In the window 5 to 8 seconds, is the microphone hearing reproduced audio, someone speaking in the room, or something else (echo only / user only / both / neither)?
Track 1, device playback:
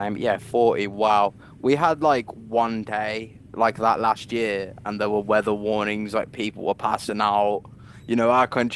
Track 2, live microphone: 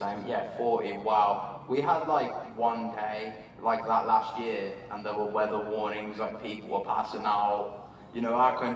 echo only